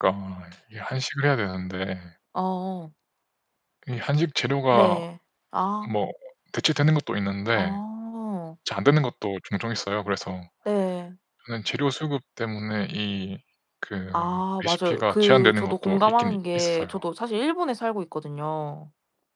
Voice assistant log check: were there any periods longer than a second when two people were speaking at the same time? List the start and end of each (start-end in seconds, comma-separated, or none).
14.6-17.0